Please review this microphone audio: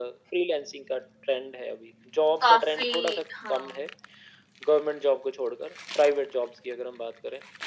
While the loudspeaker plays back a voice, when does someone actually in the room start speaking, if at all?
2.4 s

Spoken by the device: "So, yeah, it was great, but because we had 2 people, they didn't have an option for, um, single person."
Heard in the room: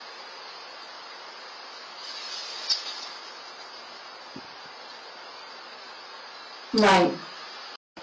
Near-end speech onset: 6.7 s

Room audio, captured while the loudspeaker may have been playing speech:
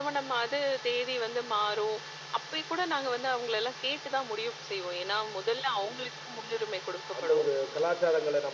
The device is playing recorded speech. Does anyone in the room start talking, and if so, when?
7.2 s

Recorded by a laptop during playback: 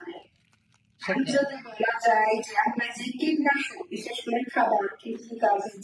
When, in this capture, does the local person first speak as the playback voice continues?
1.1 s

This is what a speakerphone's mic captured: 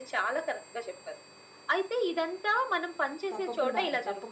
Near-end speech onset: 3.3 s

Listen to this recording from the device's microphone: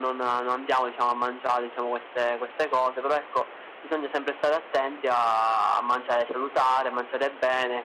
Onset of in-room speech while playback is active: none

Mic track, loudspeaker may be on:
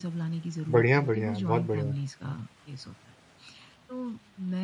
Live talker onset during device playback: 0.7 s

